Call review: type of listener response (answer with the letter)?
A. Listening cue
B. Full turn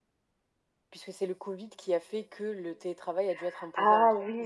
B